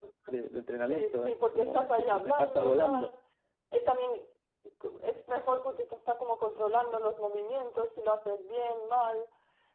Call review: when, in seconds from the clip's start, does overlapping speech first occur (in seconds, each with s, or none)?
0.8 s